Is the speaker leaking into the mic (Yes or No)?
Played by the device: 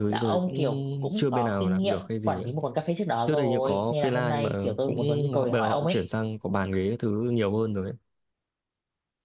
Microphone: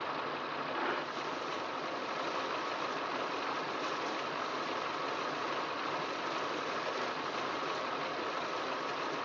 No